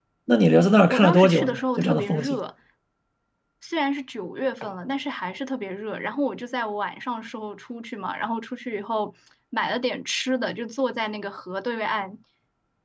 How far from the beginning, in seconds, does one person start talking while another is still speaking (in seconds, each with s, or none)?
0.9 s